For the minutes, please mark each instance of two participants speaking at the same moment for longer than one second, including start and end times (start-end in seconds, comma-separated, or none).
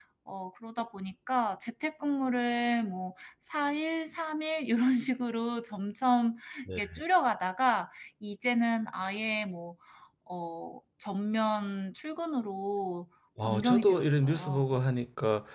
13.4-14.6